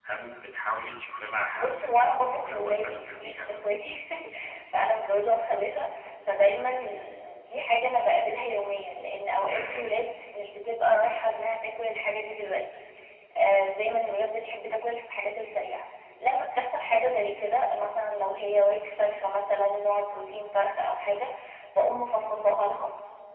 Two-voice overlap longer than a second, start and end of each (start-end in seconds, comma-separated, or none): 1.5-3.5